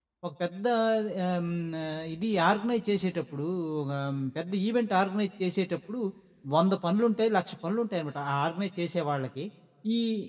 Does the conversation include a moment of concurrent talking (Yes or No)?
No